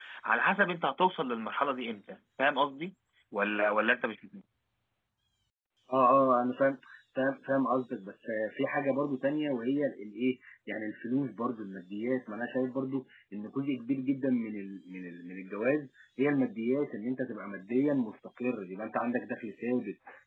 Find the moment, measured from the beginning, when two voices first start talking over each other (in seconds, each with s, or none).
none